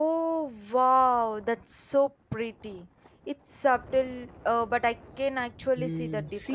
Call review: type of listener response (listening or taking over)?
taking over